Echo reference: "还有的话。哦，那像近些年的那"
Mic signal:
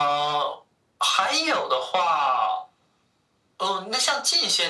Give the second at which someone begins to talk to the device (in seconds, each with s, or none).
none